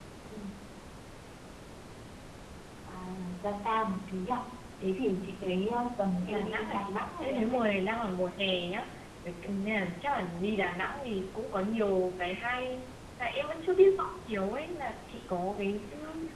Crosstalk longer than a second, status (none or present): present